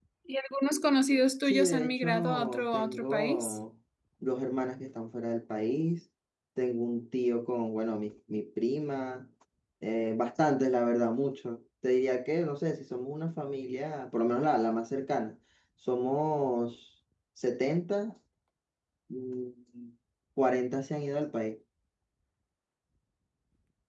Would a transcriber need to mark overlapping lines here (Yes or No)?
Yes